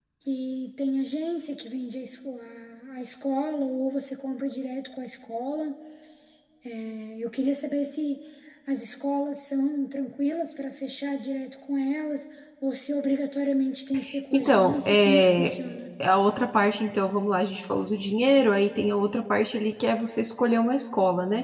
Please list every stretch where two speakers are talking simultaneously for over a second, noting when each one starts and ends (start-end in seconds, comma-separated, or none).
14.3-15.5